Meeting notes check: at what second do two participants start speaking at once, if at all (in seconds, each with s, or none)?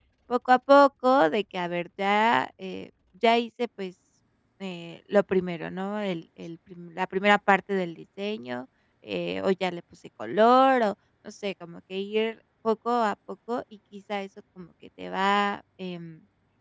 none